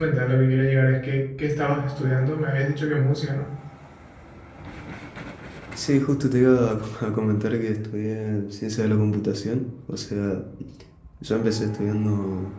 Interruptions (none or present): none